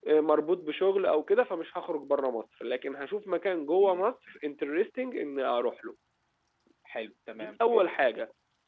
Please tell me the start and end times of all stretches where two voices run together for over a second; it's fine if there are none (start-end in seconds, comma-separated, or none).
none